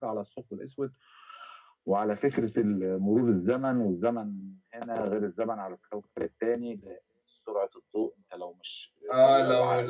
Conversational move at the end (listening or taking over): taking over